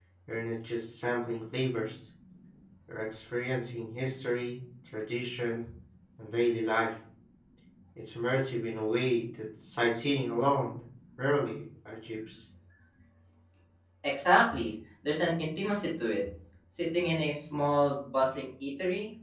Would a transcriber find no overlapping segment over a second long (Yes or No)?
Yes